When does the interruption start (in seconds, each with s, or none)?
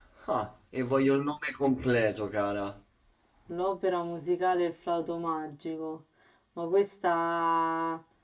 none